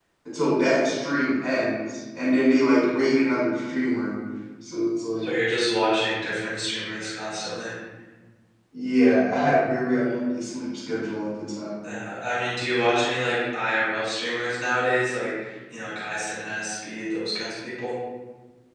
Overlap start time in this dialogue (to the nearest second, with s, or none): none